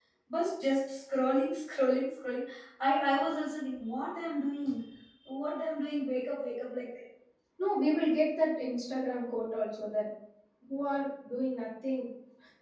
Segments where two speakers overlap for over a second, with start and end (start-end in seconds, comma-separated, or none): none